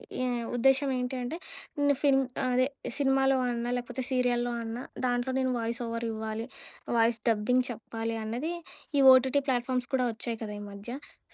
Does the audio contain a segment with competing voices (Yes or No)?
No